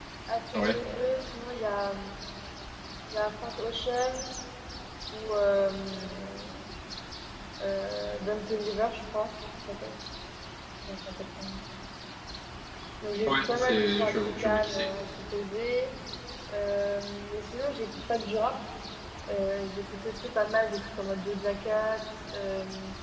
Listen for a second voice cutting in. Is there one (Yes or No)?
Yes